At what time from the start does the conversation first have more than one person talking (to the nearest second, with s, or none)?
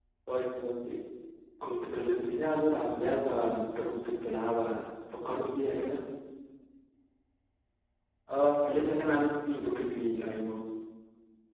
none